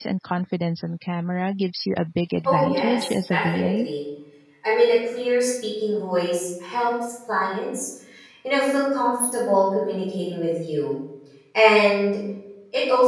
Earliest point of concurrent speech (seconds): 2.5 s

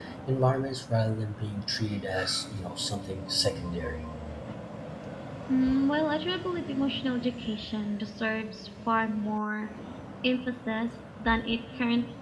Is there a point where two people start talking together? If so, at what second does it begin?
none

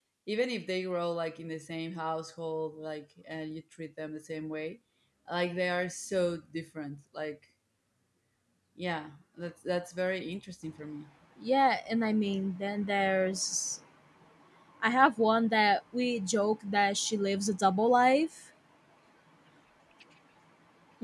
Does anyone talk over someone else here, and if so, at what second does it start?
none

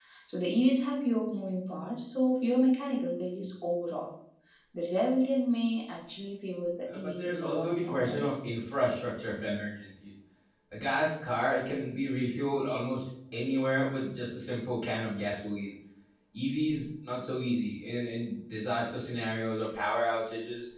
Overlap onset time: 6.9 s

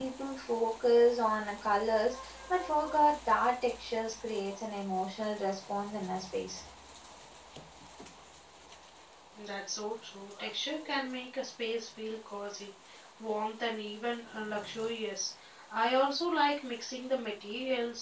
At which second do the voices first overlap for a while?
none

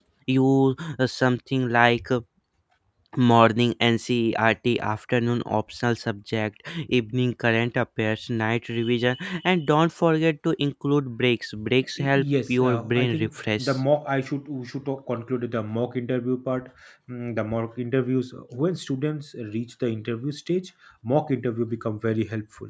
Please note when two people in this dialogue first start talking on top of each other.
12.0 s

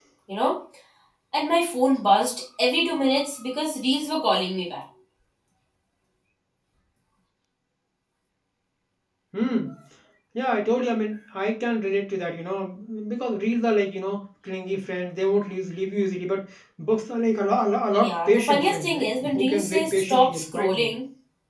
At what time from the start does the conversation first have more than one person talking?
17.9 s

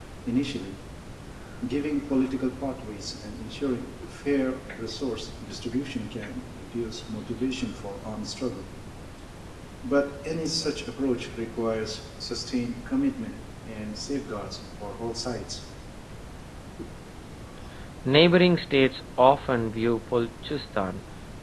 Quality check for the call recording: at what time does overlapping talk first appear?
none

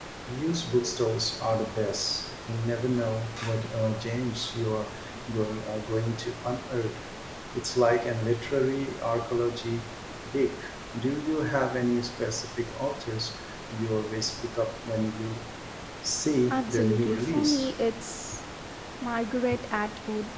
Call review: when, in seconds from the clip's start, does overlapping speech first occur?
16.5 s

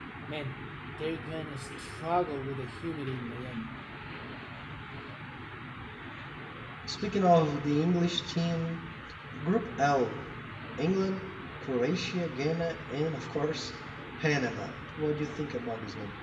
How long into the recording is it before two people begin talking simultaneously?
none

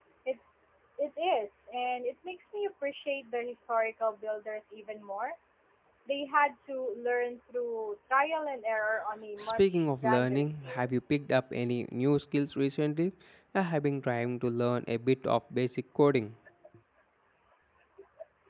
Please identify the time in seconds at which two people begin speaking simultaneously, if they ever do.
9.4 s

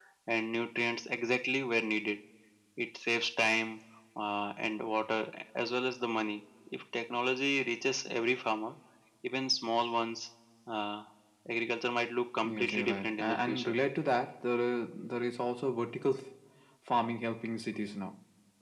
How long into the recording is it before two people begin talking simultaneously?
12.4 s

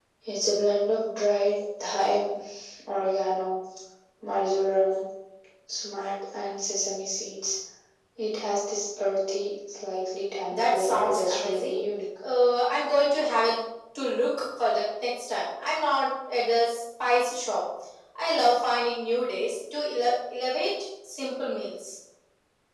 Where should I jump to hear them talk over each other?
10.5 s

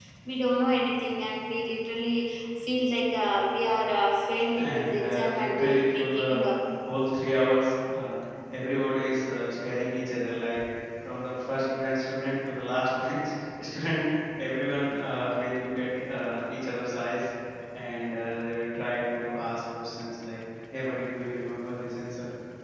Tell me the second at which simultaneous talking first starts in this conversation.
4.5 s

